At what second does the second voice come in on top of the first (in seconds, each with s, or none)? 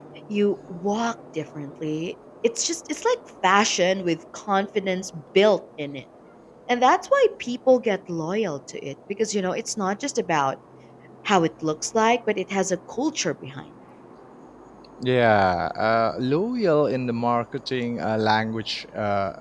none